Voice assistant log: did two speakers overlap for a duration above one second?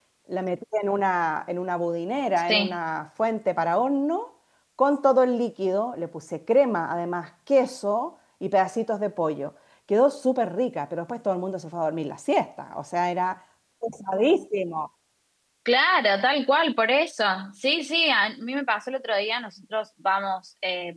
No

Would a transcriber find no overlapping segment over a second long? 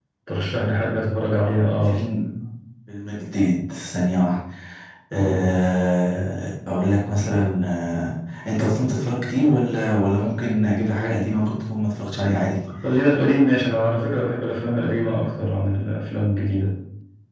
Yes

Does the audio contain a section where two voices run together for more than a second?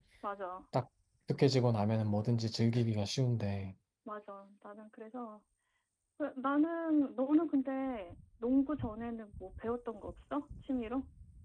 No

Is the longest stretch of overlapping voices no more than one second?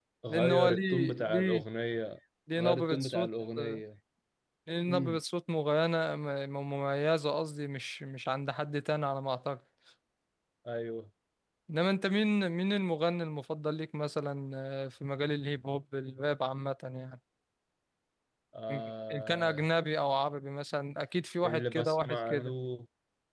No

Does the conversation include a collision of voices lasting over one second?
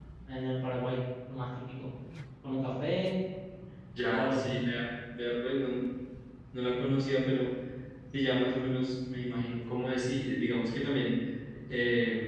No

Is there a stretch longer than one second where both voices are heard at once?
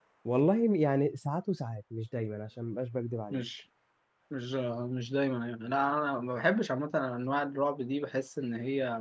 No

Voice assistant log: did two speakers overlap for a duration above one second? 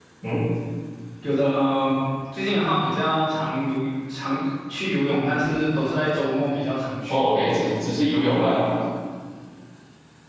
No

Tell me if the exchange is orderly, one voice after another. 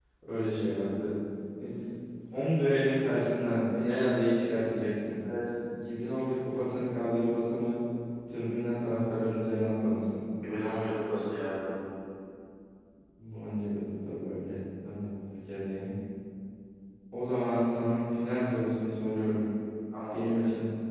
Yes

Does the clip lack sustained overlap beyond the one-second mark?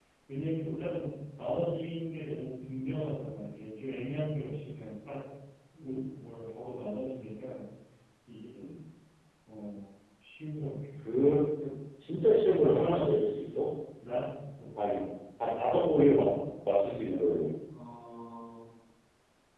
Yes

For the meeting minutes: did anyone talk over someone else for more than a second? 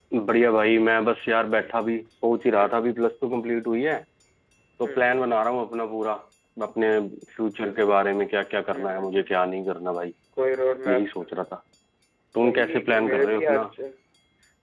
Yes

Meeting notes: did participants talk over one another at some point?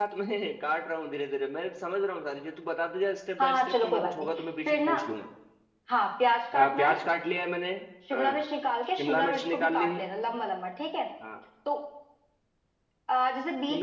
Yes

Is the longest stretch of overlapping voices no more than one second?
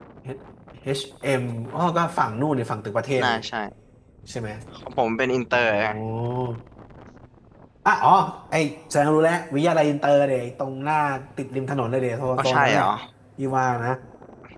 Yes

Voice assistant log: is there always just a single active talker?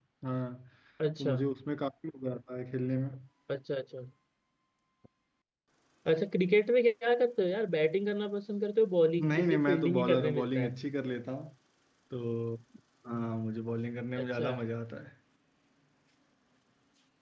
No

